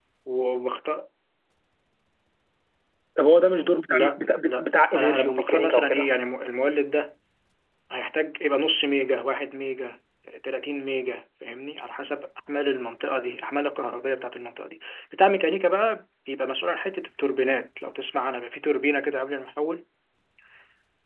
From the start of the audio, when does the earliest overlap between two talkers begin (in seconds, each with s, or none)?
3.9 s